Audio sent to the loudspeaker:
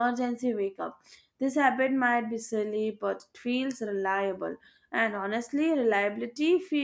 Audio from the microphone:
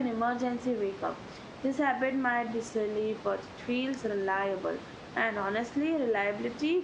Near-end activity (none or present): none